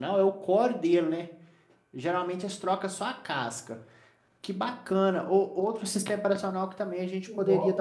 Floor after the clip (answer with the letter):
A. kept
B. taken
A